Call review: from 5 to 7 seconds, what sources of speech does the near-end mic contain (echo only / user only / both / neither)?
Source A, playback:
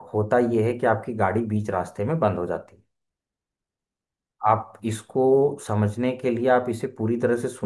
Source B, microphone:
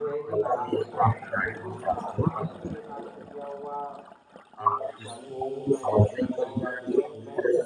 both